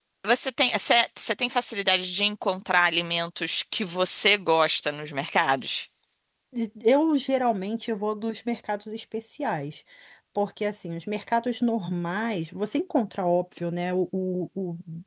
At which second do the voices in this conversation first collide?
none

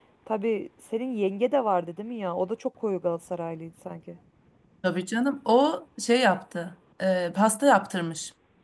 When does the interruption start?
none

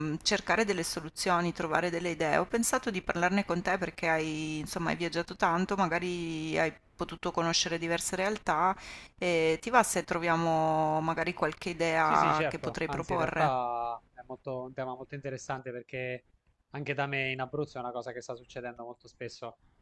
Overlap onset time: 12.1 s

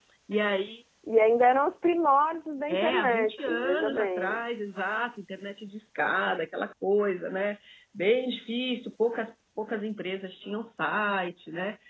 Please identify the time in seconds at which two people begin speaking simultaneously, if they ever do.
2.7 s

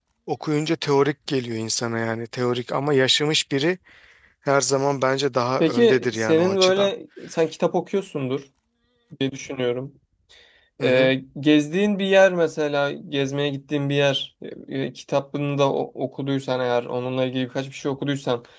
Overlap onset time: 5.6 s

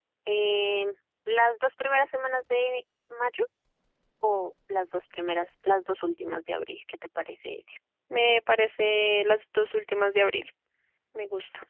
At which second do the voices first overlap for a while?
none

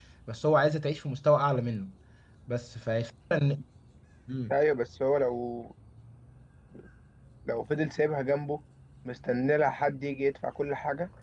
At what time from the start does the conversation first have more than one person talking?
none

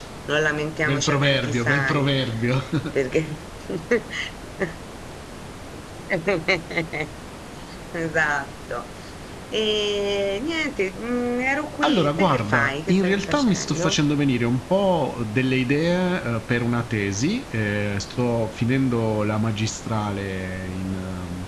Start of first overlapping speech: 0.9 s

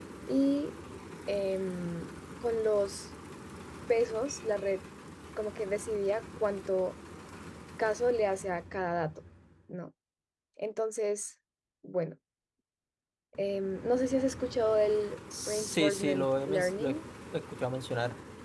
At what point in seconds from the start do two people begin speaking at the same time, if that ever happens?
15.3 s

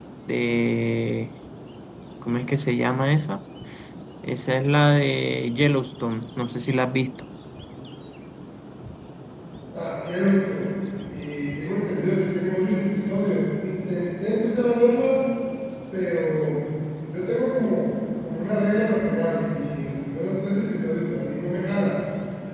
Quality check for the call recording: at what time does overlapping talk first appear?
none

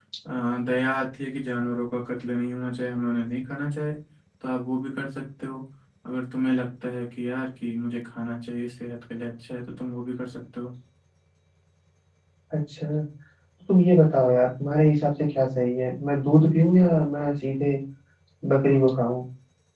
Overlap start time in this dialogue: none

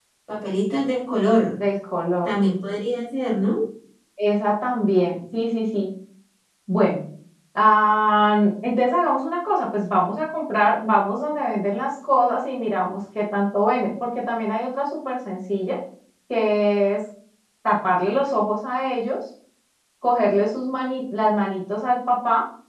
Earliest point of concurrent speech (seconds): none

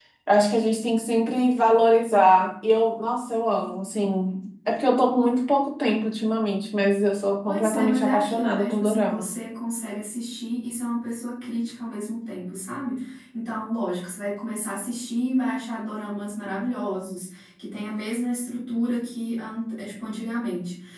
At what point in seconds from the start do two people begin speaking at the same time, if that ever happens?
7.4 s

